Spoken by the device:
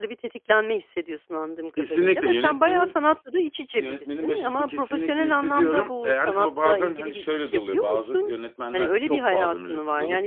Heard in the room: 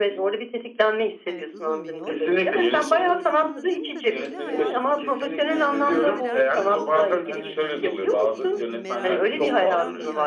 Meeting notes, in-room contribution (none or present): present